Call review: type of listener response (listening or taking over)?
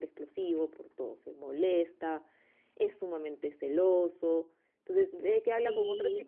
listening